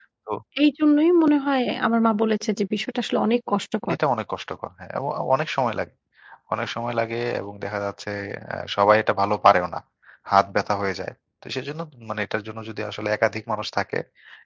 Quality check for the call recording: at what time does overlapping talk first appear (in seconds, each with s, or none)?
none